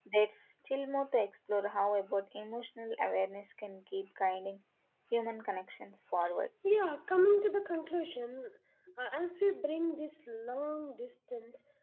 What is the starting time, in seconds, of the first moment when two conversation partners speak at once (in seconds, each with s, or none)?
none